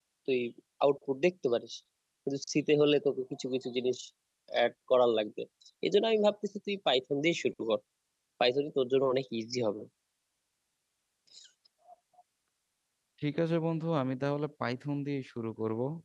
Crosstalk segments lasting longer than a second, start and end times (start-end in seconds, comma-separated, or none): none